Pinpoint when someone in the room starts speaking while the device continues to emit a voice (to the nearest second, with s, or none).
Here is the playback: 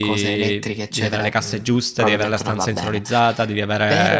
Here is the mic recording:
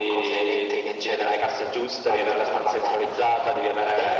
none